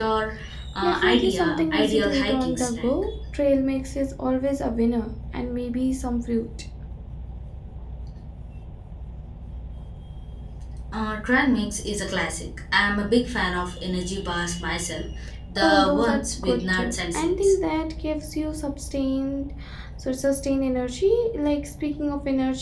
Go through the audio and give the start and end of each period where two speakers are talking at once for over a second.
0.8-2.9, 15.6-17.5

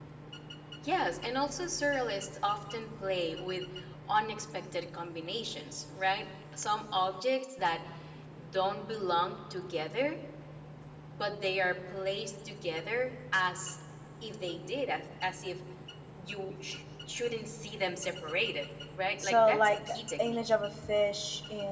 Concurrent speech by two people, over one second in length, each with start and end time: 19.2-20.4

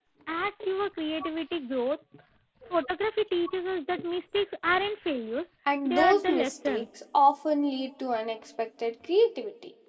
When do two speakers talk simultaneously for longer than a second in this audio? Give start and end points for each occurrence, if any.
5.8-7.2

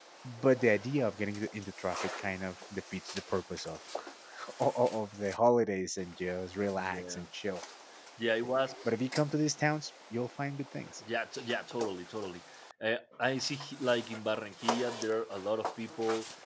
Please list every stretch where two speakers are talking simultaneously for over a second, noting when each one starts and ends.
none

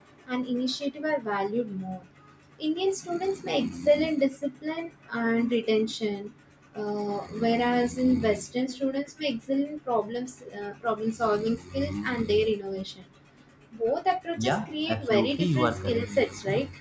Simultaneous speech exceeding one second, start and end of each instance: 14.4-16.1

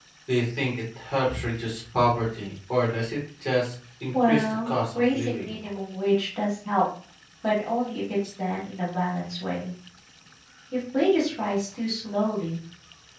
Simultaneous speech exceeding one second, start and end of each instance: 4.2-5.6

